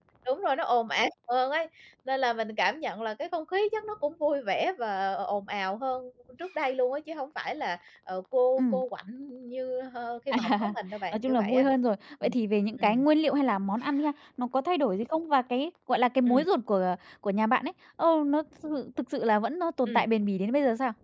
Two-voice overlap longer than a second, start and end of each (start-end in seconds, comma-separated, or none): none